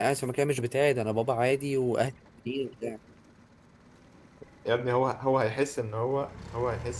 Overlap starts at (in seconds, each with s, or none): none